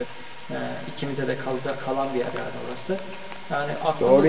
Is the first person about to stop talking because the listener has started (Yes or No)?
Yes